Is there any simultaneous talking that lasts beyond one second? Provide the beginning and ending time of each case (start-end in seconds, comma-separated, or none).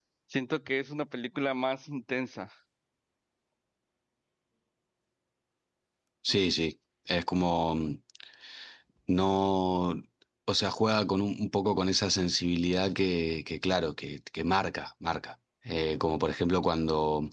none